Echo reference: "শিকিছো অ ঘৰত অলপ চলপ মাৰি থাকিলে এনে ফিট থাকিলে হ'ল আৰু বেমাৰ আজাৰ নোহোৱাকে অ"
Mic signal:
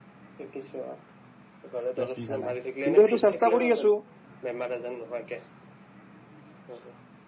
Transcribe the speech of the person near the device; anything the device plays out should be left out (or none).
তিয়া চিন্তা নাই। কিন্তু, সেইটো চেষ্টা কৰি আছো।